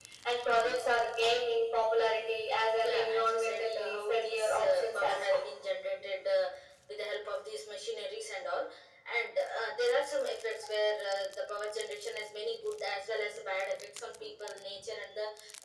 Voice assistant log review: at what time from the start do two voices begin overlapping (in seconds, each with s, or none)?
2.8 s